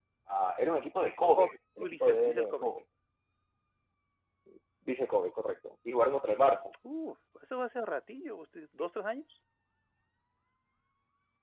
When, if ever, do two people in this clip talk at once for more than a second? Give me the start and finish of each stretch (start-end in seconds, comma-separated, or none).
1.4-2.7